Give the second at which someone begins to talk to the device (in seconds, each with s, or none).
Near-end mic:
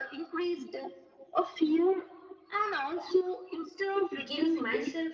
4.2 s